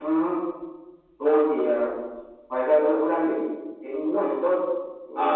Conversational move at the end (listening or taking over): taking over